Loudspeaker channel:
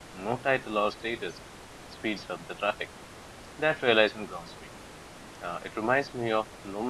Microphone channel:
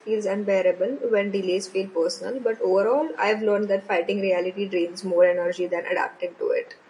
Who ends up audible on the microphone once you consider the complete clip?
user only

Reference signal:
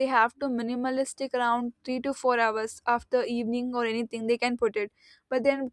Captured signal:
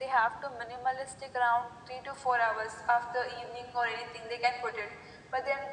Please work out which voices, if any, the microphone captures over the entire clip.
echo only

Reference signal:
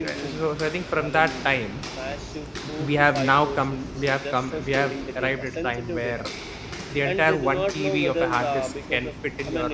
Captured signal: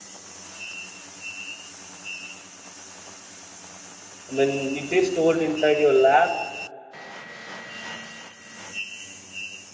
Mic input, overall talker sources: user only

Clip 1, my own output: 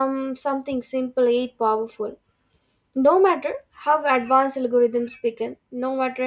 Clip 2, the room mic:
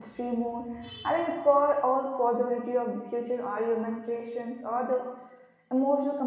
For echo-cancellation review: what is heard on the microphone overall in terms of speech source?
user only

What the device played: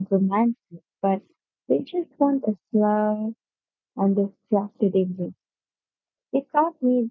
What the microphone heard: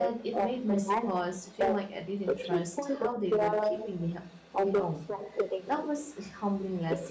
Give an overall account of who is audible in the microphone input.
both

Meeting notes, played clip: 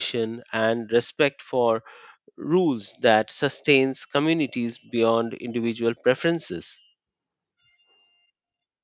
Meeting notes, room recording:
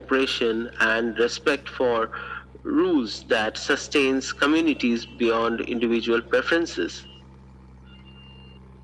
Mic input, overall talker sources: echo only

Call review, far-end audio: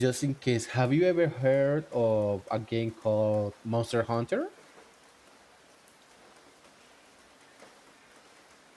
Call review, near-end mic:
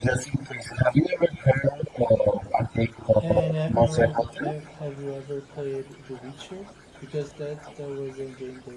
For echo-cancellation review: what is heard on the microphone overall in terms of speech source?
both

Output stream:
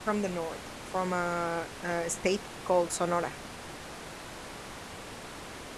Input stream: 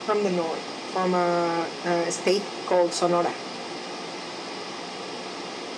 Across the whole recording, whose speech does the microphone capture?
echo only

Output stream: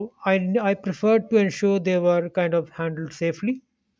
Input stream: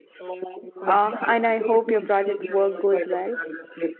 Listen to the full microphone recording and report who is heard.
both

